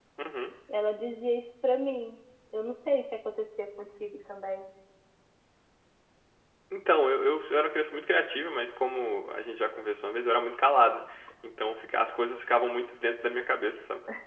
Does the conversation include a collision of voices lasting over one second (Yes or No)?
No